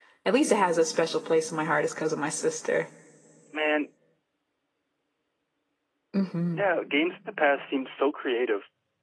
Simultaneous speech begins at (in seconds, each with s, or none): none